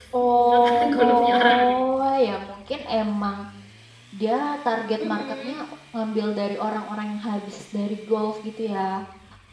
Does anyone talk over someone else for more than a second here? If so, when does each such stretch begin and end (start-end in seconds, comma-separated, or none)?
0.5-1.7